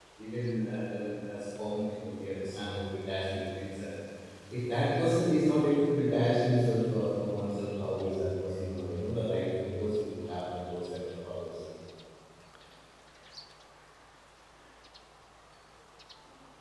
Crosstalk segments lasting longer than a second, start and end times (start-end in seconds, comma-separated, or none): none